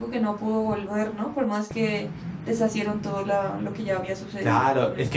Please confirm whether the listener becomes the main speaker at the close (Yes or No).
Yes